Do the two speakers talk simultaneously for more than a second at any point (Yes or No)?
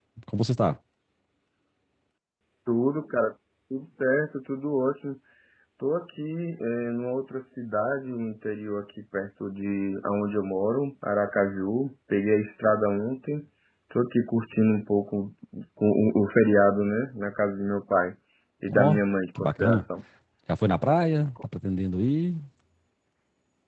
No